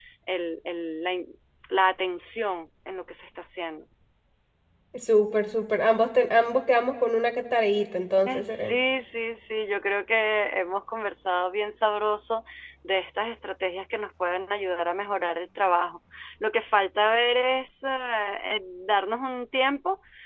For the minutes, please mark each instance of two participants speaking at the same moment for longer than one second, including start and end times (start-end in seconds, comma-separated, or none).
none